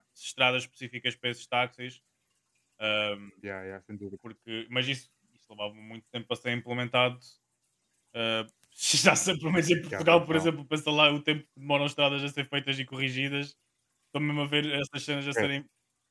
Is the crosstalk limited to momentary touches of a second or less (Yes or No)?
Yes